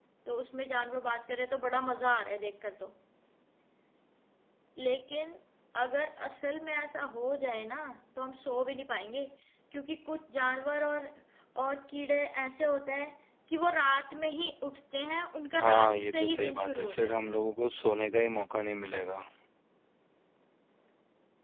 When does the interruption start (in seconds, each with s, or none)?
15.5 s